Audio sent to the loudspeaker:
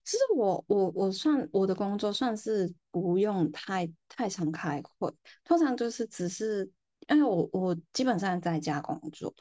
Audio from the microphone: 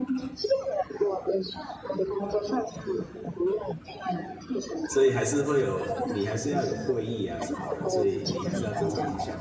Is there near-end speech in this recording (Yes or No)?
Yes